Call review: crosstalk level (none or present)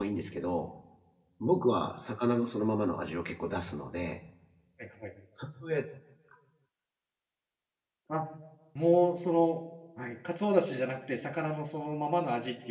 none